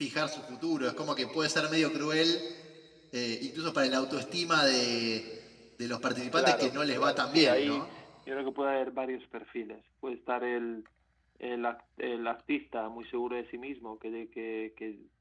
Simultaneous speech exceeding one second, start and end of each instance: 6.3-7.9

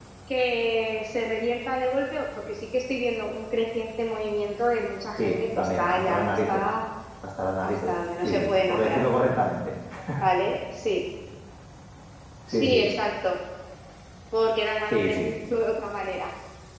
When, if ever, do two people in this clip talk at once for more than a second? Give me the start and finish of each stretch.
5.2-6.6, 7.6-9.0

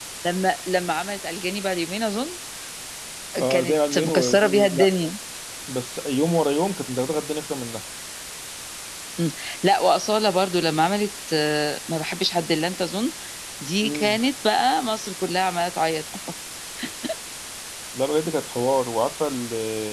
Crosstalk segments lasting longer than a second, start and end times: 3.5-4.9

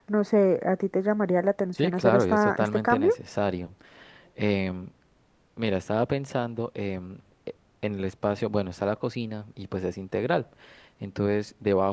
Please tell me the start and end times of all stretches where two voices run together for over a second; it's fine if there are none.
1.7-3.1

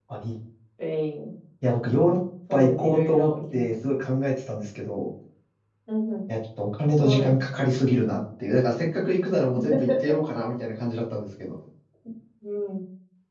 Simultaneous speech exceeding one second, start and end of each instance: 2.5-4.0

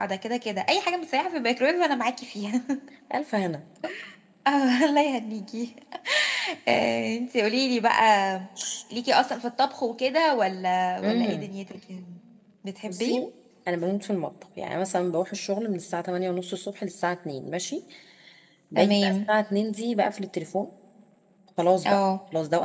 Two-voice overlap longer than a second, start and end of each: none

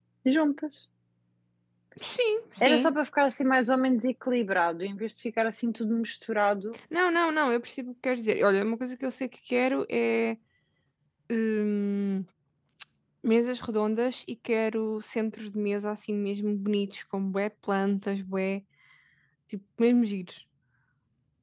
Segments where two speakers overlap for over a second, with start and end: none

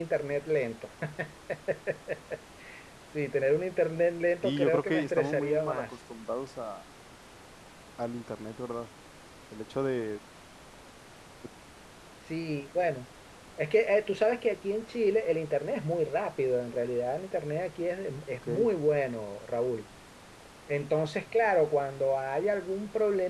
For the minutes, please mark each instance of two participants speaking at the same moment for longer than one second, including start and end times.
4.4-5.8

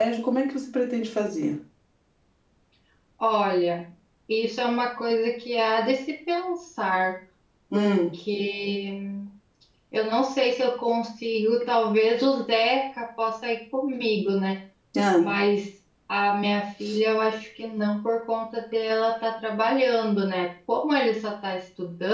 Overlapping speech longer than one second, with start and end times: none

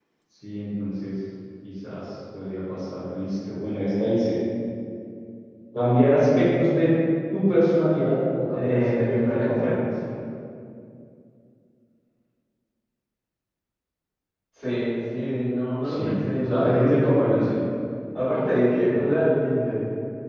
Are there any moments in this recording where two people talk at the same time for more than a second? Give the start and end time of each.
8.5-9.8, 15.9-17.4

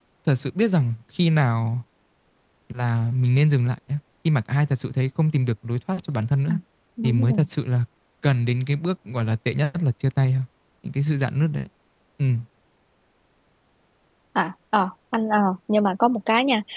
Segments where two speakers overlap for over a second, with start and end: none

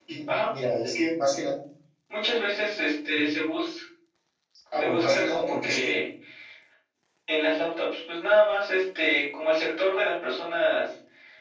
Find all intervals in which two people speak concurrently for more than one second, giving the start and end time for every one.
4.7-6.0

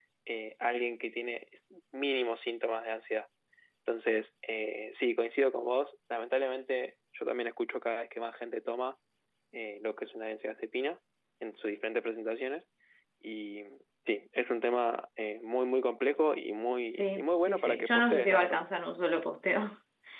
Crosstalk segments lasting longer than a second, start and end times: 16.9-18.6

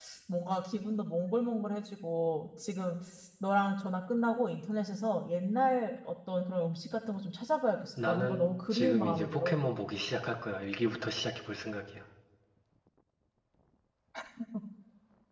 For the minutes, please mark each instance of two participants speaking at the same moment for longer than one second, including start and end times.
8.0-9.6

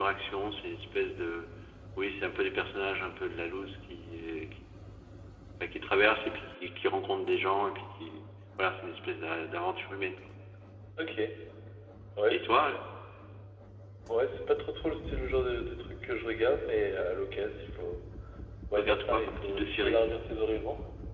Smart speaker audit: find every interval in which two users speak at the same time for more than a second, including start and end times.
18.8-20.0

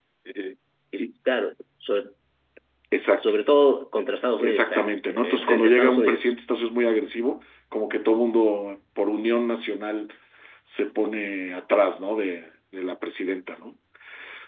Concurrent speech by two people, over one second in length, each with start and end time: 4.4-6.3

